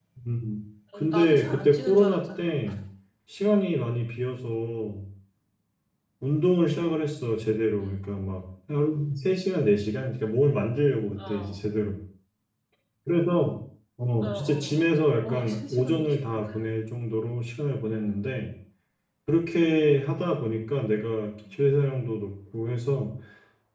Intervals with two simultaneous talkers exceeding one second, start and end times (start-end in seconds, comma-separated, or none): 0.9-2.6, 14.2-16.4